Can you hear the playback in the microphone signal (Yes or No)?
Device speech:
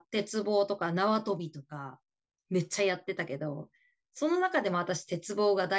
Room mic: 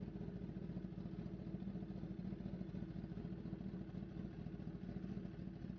No